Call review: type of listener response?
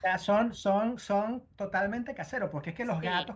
listening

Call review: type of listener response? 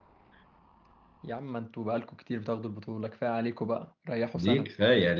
taking over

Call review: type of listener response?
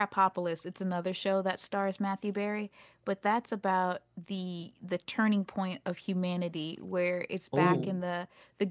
listening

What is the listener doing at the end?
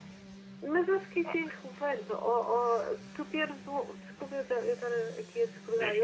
listening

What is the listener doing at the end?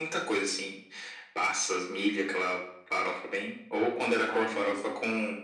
listening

